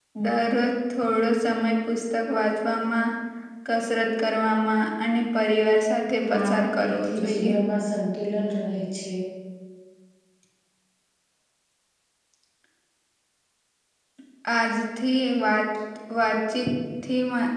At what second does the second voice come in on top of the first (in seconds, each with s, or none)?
6.2 s